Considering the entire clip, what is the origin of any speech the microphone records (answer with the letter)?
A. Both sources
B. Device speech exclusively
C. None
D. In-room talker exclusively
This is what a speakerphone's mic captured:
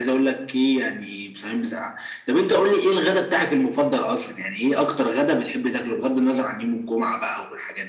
B